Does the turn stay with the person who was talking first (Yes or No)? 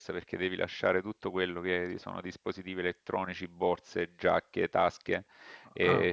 Yes